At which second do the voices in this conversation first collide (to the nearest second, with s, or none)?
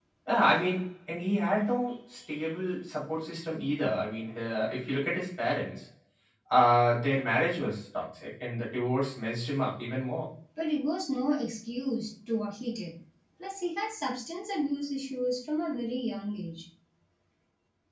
none